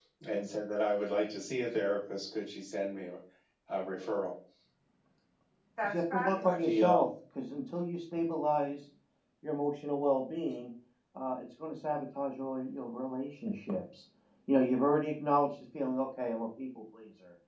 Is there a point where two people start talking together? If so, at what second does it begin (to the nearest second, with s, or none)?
6 s